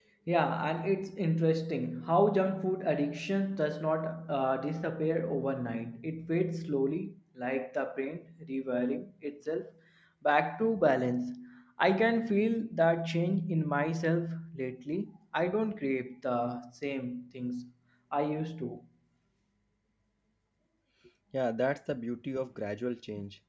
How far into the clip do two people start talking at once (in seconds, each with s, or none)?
none